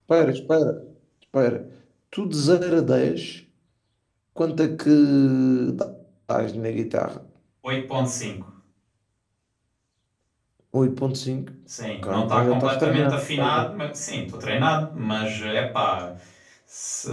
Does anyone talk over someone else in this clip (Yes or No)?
Yes